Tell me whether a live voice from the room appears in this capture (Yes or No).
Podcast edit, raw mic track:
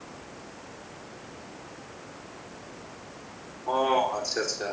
Yes